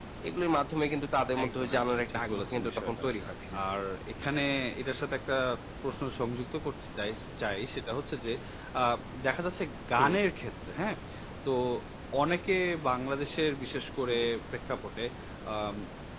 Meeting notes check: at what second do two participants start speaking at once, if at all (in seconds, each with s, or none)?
1.4 s